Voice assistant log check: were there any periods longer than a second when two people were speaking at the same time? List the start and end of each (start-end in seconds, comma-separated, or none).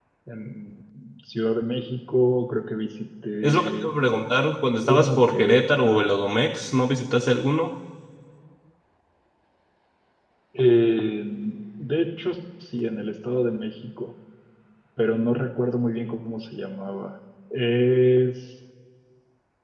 4.8-6.1